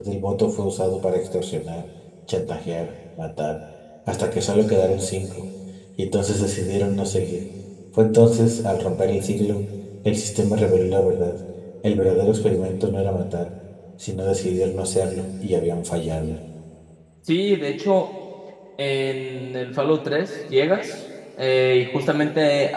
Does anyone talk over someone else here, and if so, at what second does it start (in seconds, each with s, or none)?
none